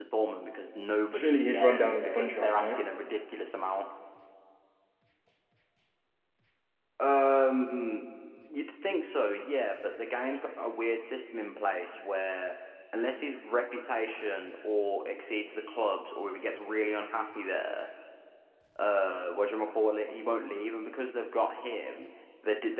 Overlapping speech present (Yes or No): Yes